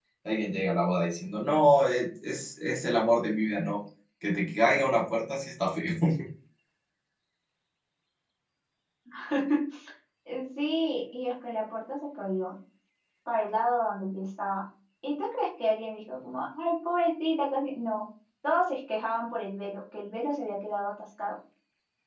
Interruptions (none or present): none